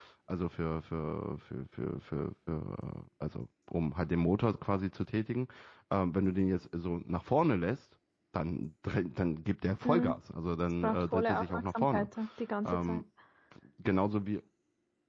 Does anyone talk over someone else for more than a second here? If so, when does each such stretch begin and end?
10.8-12.1

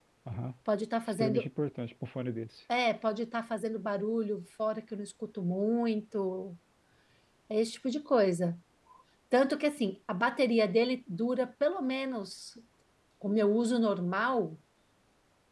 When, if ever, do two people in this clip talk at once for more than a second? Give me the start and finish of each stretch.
none

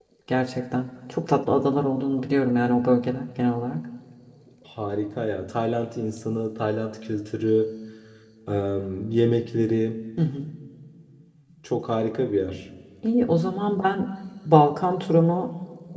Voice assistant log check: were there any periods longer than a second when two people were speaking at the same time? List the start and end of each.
none

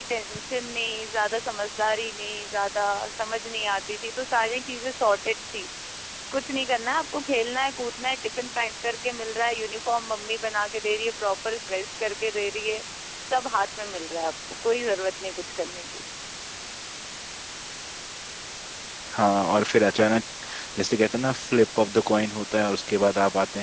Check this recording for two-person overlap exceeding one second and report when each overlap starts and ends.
none

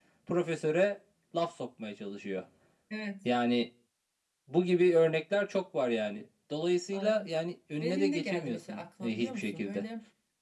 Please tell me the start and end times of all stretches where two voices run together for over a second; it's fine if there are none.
7.8-9.8

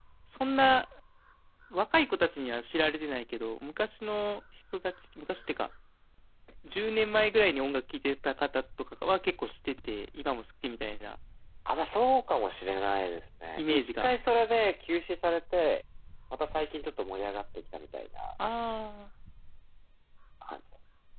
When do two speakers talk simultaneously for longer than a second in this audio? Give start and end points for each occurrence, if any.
none

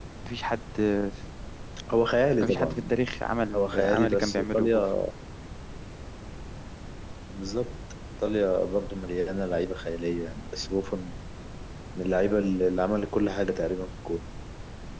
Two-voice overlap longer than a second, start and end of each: 3.5-4.8

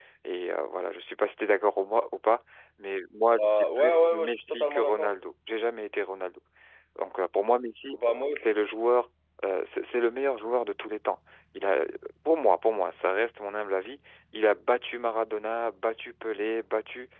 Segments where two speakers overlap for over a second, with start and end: 3.3-5.1

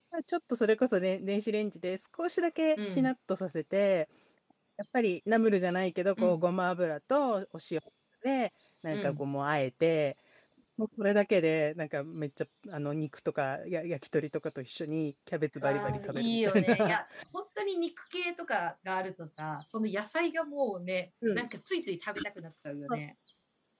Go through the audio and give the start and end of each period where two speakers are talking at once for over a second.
15.6-17.0

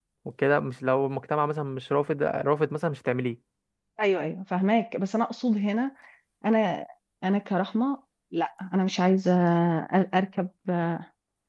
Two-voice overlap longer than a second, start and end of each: none

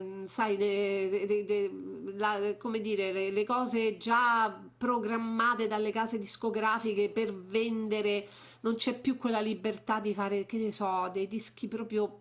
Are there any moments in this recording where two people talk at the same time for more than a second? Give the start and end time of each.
none

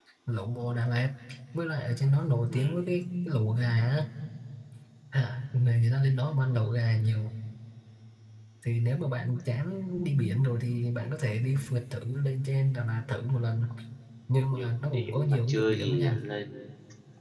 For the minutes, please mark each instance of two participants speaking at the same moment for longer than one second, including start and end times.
14.5-16.2

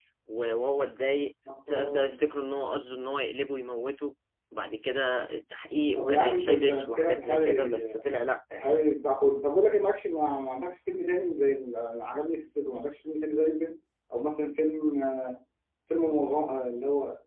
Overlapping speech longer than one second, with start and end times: 6.0-8.0

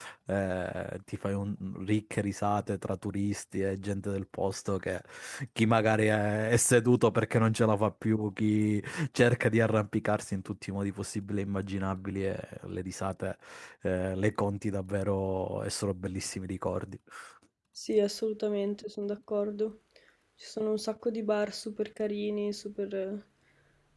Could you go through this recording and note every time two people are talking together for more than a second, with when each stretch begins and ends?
none

